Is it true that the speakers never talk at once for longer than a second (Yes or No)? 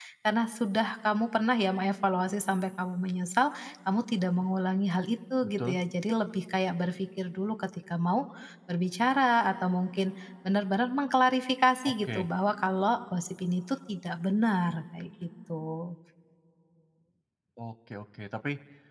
Yes